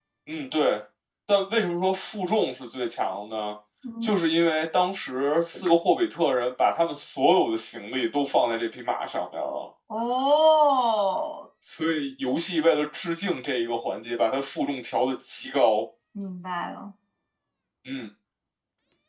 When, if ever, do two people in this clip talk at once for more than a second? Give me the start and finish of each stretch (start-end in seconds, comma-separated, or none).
none